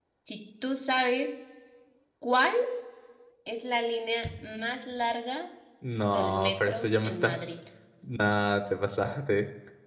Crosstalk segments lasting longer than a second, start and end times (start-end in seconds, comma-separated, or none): 6.1-7.4